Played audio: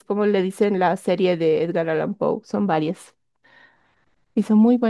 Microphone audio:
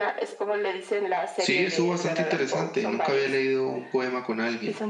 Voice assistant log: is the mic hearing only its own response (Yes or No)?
No